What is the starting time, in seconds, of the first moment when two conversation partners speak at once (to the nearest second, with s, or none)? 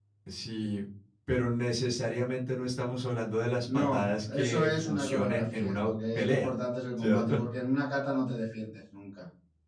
4 s